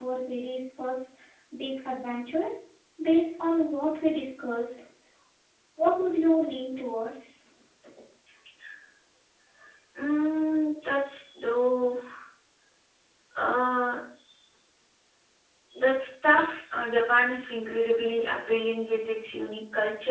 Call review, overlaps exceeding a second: none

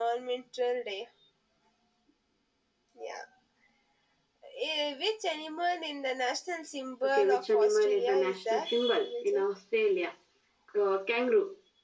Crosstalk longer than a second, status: present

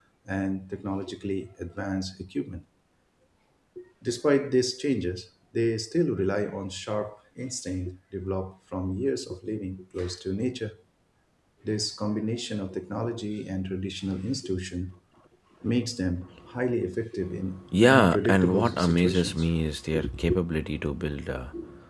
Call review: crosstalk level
present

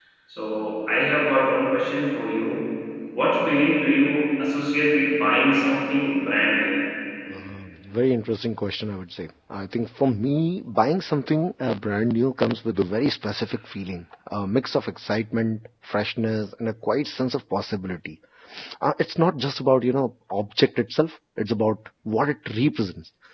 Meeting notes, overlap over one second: none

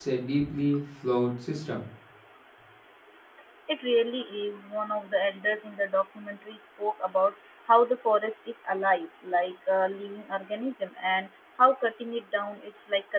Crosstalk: none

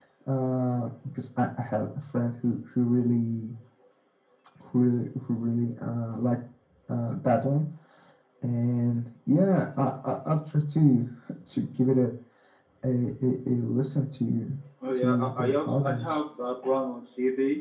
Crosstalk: present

